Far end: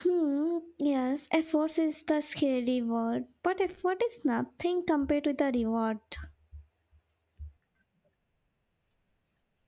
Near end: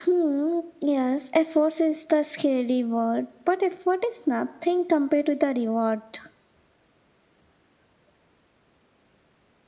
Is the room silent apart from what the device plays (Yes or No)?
Yes